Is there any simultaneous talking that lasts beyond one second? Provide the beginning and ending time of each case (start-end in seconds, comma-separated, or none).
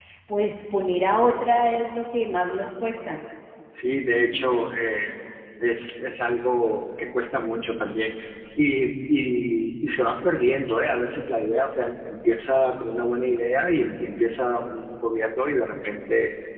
none